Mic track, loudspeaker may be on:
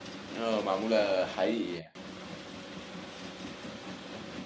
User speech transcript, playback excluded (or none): اه معموله حقيقي يعني